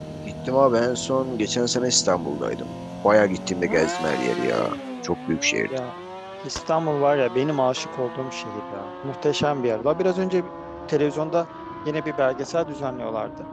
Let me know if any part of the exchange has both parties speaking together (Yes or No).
No